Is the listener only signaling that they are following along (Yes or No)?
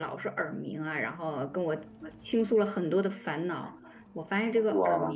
Yes